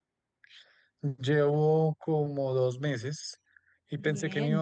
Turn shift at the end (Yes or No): No